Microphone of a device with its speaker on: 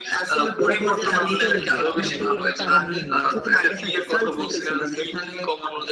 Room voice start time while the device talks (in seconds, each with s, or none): 0.7 s